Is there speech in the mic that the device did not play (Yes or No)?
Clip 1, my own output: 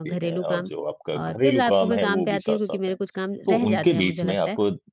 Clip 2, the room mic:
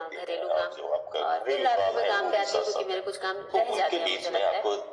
No